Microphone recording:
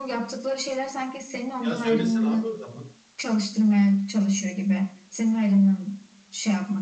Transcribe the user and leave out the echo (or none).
sen? Ya söylesin abi o zaman.